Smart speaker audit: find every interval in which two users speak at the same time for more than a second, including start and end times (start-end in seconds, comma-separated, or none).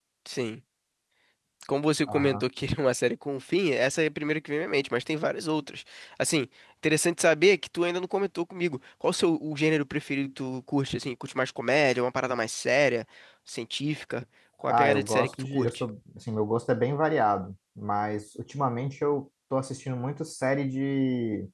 14.6-15.8